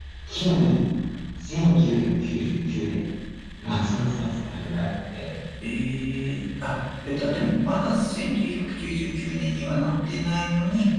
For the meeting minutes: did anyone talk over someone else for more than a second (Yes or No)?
No